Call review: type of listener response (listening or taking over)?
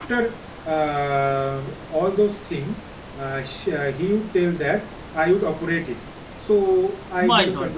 listening